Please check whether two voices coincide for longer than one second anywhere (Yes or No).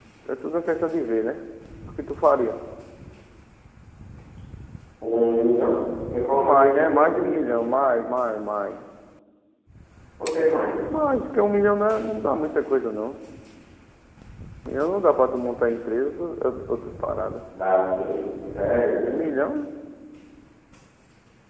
Yes